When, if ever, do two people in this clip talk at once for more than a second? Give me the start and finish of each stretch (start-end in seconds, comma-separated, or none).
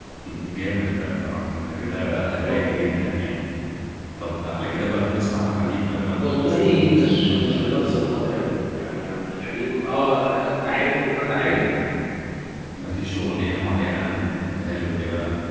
6.2-7.8